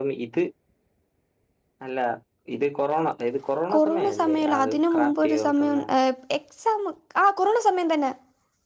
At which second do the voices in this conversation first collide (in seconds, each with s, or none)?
3.7 s